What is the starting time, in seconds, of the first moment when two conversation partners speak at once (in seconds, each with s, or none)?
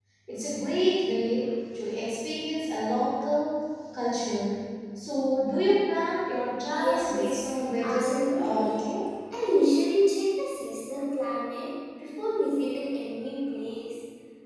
6.7 s